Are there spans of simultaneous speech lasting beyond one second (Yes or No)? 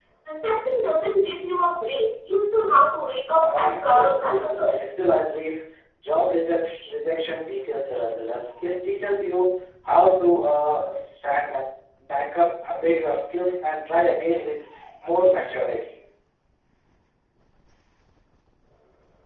Yes